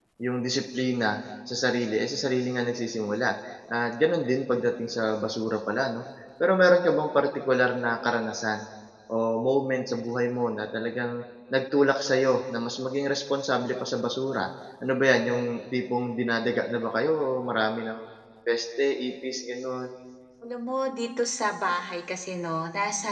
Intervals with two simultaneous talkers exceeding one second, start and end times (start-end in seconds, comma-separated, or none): none